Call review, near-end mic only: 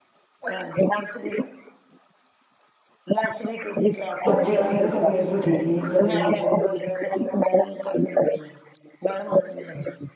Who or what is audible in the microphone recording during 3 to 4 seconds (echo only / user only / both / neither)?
echo only